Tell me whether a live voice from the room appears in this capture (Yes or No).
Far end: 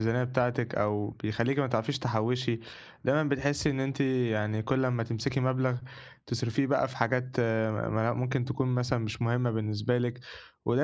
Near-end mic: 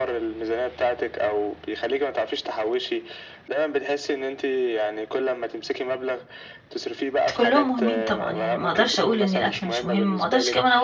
Yes